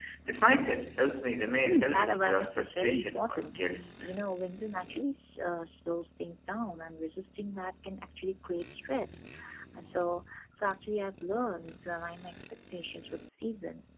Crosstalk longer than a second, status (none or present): present